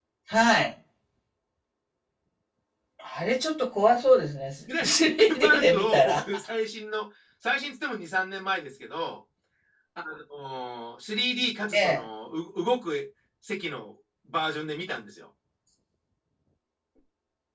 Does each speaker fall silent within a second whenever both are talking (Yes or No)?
No